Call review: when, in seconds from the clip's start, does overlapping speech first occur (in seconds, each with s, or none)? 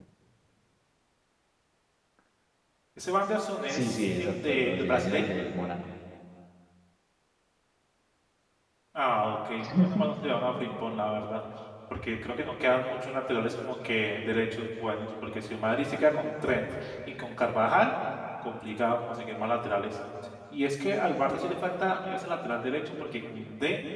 3.7 s